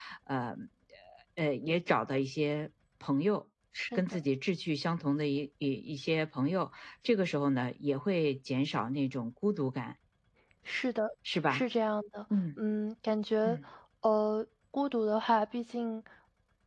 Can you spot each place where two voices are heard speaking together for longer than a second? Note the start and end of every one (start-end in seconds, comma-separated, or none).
none